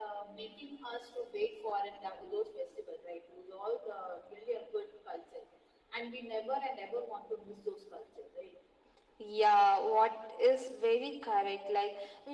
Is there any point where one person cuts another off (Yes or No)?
No